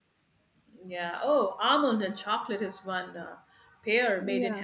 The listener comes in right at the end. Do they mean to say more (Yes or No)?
No